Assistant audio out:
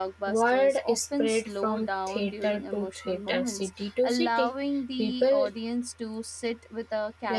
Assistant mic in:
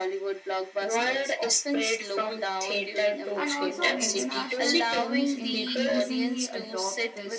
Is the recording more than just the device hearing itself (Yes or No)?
Yes